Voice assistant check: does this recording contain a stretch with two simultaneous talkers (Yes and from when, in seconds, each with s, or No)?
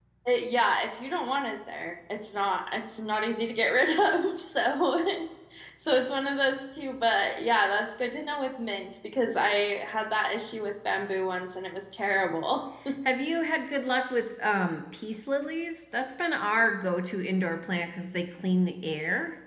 No